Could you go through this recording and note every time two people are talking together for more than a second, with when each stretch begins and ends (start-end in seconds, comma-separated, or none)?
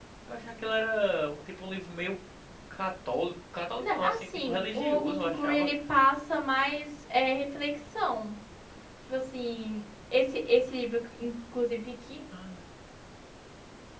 3.8-5.7